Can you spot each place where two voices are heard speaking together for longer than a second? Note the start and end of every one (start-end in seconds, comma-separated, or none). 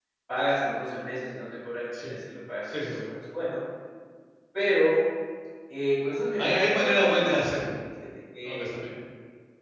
6.4-7.6